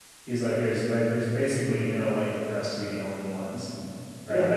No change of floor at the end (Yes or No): Yes